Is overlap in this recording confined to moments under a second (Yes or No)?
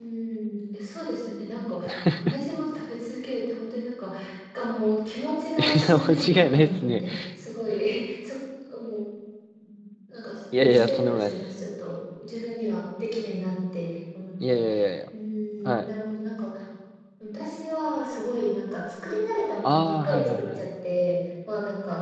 No